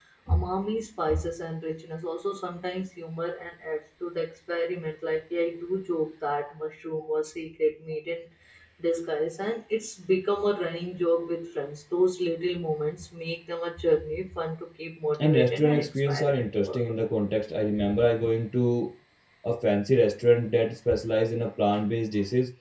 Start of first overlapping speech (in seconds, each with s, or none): 15.1 s